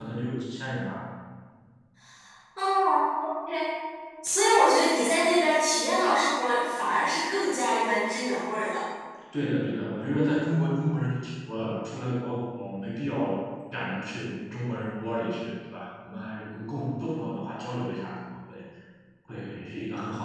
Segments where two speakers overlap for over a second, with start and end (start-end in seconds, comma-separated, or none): none